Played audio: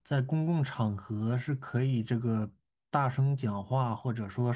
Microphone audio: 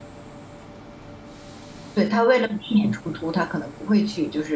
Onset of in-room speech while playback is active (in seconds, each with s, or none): 1.9 s